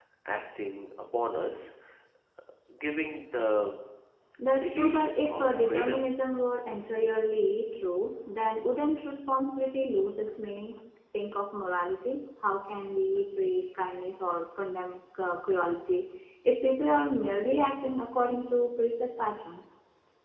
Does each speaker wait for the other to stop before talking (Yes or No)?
No